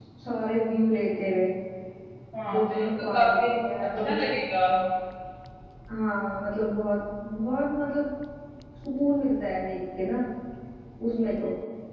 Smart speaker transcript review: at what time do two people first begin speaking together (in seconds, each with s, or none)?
2.5 s